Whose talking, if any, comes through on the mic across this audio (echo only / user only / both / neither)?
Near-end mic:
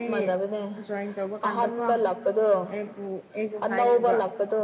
both